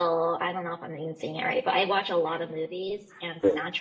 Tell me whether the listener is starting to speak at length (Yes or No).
No